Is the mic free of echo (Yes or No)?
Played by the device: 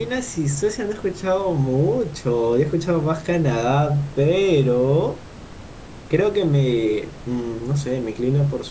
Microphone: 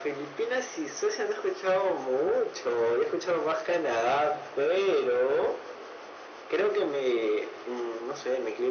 No